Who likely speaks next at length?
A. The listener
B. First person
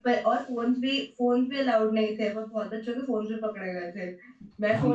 B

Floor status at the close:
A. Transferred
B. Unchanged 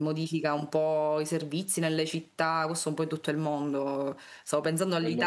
B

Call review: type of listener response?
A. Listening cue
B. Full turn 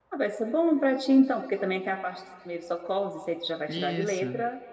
A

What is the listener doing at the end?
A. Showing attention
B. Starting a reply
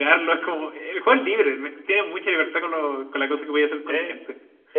B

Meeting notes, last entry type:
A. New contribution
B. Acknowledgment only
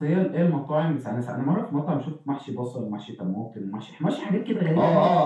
A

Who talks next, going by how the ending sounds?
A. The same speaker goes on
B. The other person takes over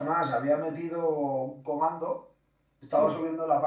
A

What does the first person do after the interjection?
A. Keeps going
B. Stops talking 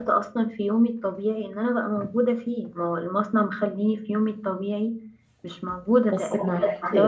A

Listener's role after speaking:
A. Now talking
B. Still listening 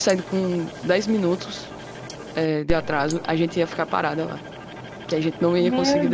A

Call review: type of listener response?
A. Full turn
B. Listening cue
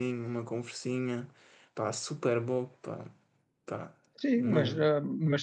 A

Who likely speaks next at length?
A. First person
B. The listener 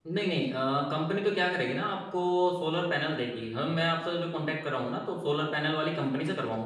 A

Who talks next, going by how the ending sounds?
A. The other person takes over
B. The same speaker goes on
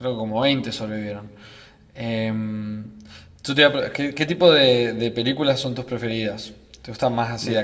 B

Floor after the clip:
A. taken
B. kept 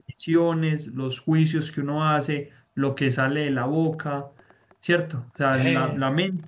B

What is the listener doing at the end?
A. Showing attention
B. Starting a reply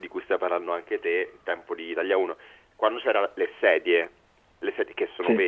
A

